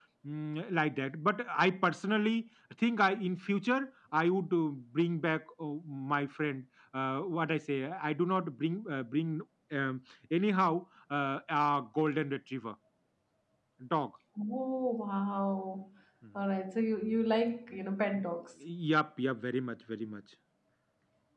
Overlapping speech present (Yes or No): No